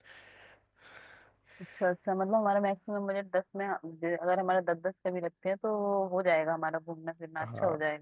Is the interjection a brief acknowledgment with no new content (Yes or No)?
No